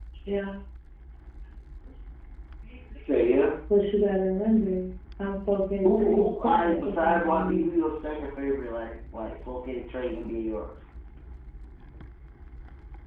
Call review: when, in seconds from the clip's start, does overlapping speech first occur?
5.8 s

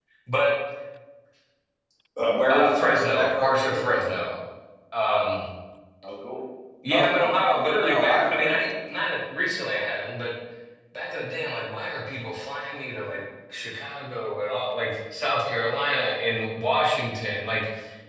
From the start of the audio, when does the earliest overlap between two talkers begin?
2.5 s

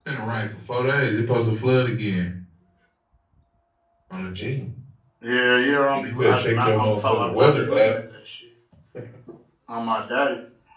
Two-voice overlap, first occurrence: 6.0 s

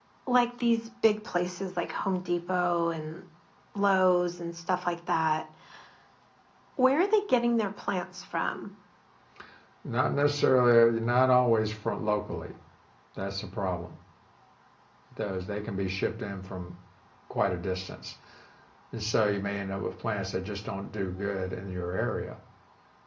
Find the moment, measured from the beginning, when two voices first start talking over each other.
none

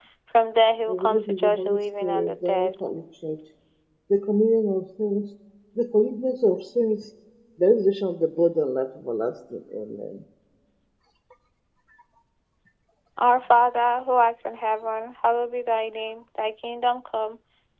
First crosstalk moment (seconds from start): 0.9 s

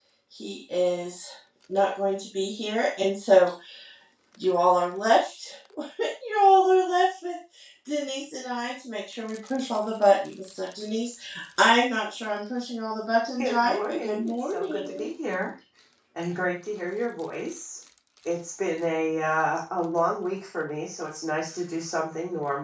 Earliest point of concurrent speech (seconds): 13.4 s

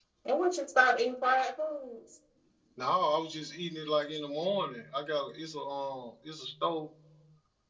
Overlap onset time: none

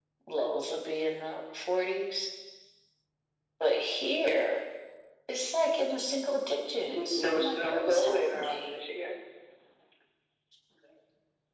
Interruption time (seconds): 6.8 s

